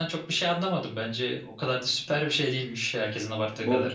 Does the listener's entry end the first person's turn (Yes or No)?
Yes